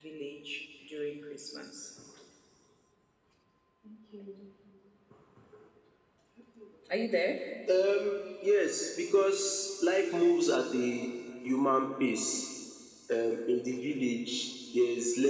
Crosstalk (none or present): none